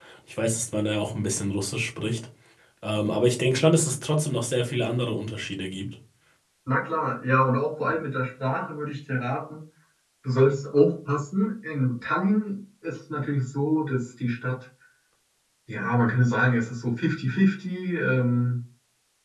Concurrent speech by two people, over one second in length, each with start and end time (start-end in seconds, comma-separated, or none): none